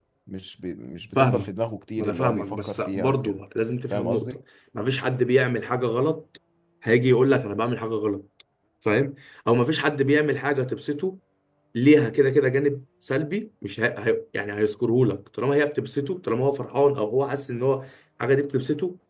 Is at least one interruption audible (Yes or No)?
Yes